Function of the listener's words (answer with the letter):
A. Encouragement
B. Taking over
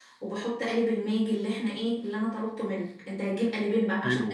A